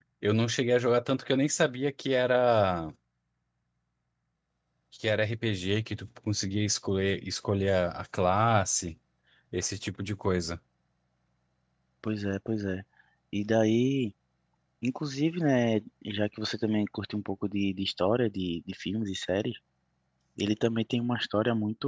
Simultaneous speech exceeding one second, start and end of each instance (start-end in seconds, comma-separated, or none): none